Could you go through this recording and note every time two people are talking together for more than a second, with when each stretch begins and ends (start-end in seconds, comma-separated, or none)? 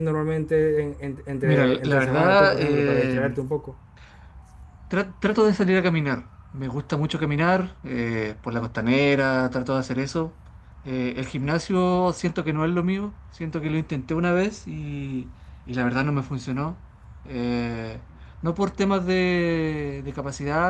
1.4-3.4